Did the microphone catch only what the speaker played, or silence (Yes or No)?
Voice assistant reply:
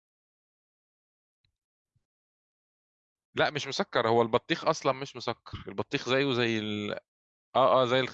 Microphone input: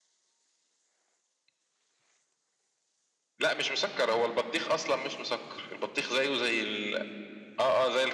Yes